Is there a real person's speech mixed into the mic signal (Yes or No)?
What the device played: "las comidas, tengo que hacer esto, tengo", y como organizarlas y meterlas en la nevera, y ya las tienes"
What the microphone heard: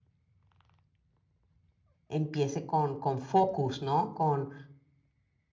Yes